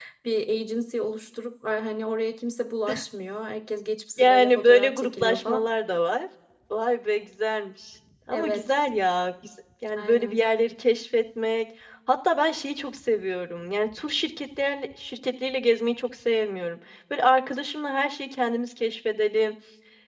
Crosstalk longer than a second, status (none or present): present